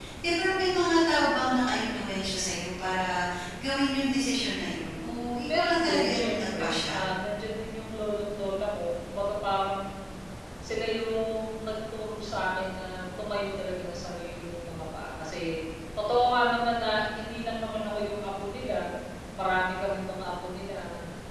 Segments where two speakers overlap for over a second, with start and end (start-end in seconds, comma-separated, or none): 5.5-6.9